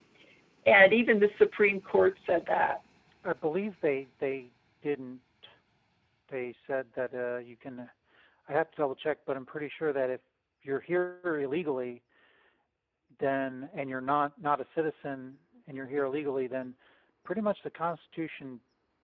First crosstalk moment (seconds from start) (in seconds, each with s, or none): none